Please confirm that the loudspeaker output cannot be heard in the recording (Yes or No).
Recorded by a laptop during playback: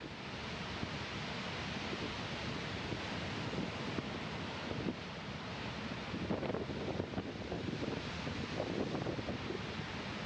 Yes